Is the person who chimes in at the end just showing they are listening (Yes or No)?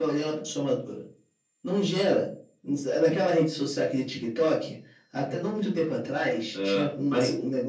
Yes